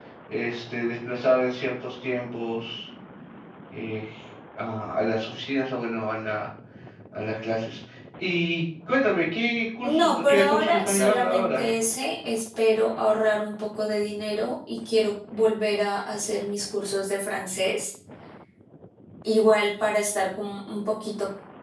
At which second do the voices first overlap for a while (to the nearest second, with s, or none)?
10 s